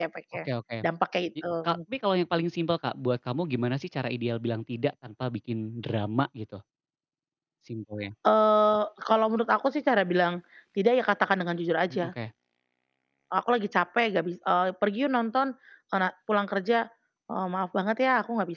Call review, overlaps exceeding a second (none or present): none